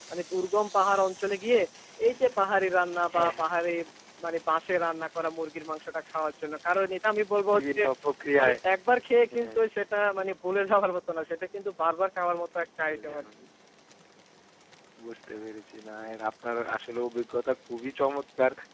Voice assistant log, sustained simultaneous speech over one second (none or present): none